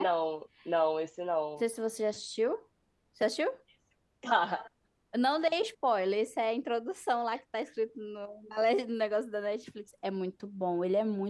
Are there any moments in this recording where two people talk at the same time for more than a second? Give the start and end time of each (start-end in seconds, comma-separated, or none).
none